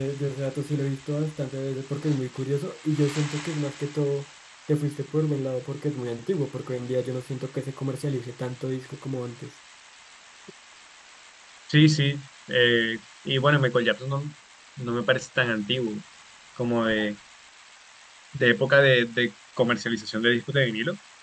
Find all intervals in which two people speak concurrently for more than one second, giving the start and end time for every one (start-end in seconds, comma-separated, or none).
none